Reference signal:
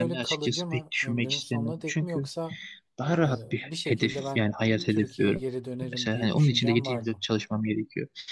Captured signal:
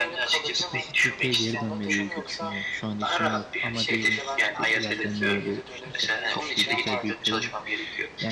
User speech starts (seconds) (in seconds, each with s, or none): 0.4 s